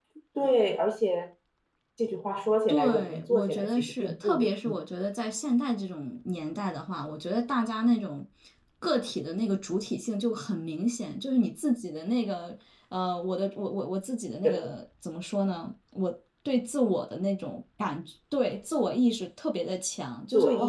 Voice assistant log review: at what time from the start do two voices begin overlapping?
2.7 s

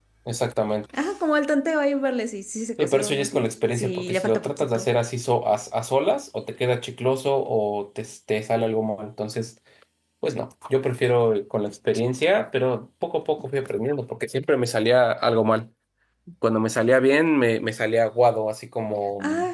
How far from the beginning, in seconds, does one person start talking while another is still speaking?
2.8 s

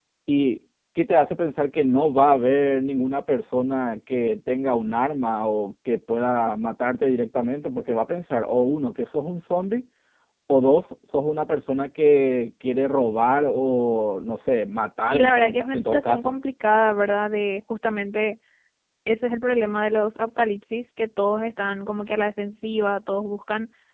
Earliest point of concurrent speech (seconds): 15.1 s

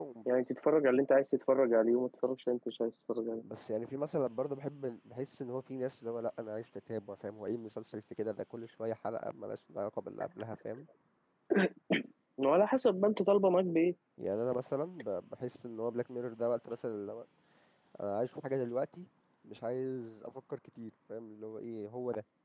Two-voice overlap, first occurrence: none

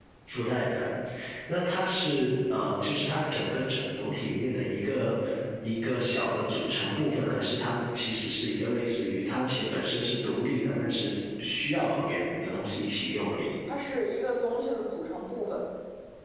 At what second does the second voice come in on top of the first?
none

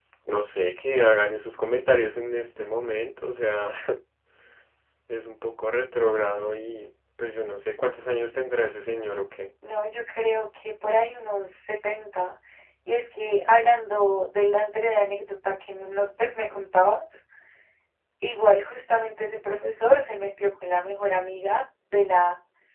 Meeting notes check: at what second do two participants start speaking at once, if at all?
none

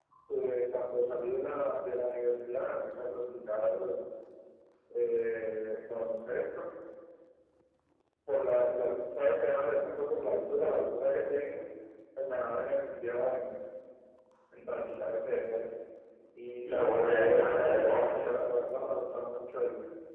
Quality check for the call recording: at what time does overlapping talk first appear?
16.6 s

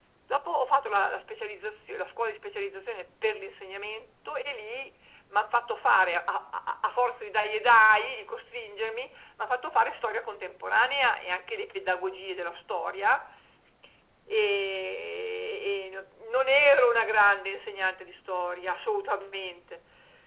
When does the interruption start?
none

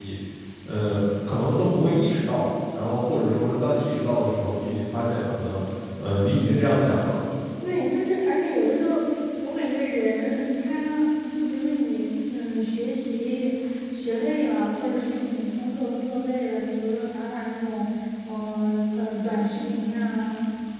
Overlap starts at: none

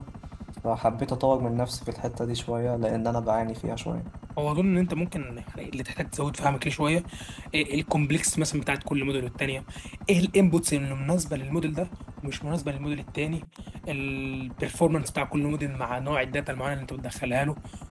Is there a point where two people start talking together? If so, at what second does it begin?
none

